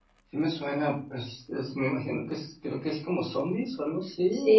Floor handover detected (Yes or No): Yes